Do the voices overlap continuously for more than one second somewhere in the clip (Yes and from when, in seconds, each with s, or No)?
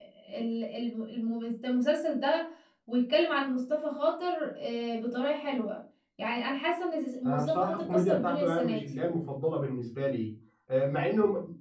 Yes, from 7.2 s